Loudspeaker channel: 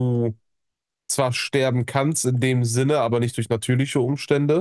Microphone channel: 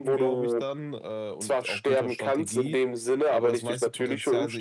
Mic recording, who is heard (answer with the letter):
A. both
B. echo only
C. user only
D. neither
A